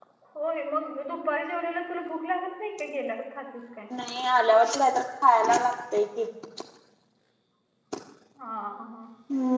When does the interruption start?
none

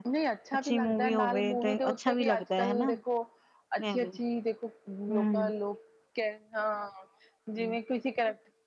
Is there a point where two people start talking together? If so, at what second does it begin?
1 s

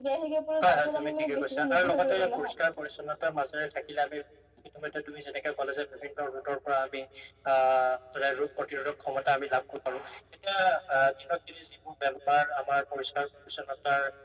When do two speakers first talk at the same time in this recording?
1 s

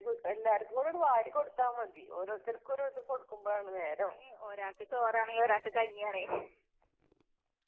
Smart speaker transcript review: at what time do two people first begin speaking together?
none

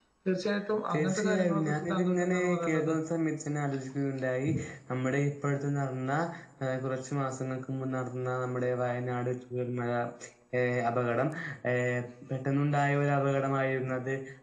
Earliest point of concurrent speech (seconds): 1 s

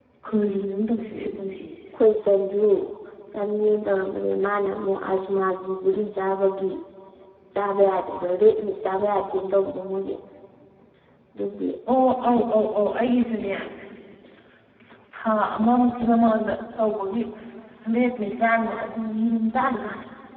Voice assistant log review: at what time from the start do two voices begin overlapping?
none

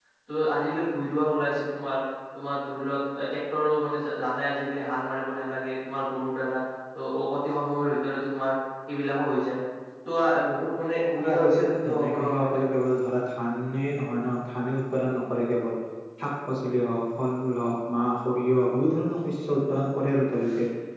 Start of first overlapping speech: 11 s

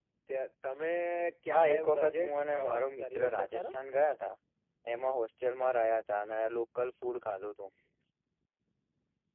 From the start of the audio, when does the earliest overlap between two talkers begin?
2 s

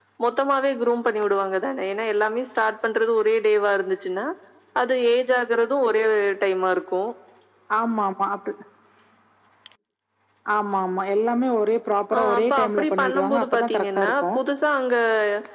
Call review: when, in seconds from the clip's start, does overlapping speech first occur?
12 s

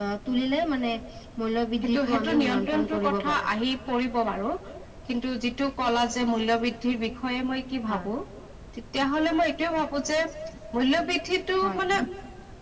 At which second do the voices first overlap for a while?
2 s

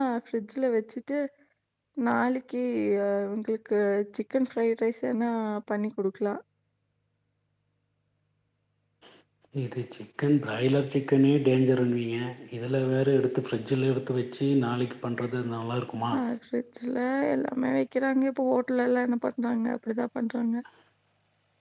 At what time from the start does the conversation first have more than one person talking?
none

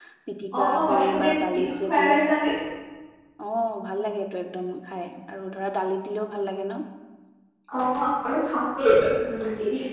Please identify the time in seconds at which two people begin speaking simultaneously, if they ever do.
1 s

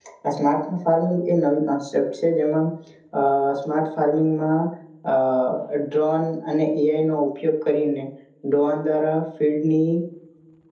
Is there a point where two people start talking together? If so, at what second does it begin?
none

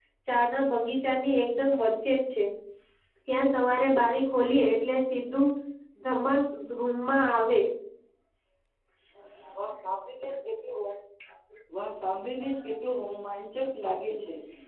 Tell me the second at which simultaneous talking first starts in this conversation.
none

